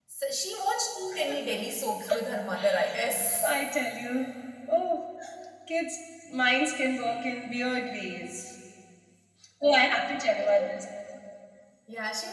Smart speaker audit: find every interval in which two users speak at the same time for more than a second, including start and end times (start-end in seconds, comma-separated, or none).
none